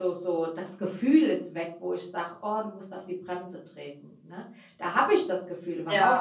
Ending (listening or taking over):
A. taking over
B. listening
B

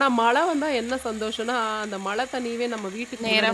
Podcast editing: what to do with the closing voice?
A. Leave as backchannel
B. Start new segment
A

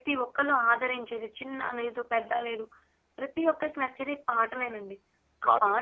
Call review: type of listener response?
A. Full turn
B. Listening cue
B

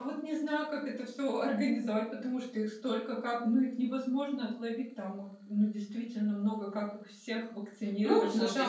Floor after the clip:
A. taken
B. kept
A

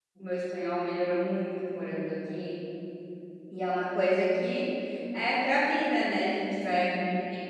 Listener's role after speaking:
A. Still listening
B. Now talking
A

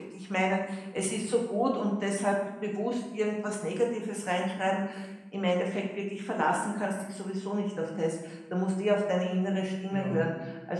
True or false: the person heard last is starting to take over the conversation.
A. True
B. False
B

